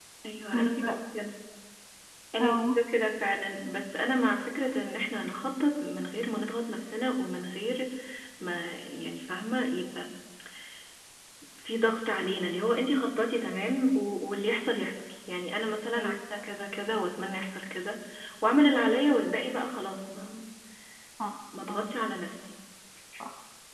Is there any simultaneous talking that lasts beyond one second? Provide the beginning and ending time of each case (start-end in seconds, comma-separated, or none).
none